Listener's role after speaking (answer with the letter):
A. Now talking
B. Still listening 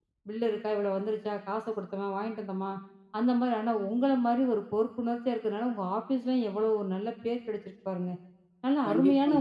B